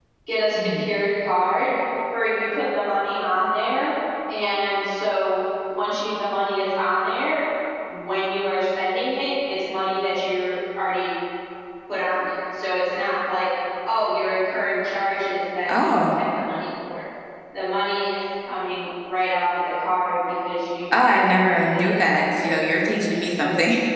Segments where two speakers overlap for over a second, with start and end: 20.9-22.2

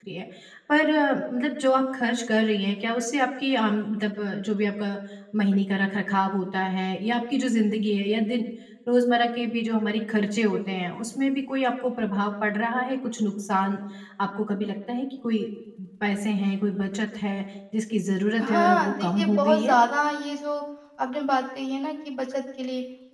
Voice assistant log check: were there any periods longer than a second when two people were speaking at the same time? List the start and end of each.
18.4-19.8

